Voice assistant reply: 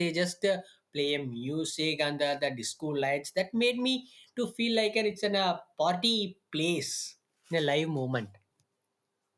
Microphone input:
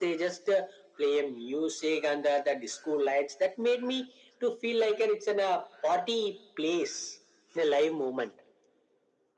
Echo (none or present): present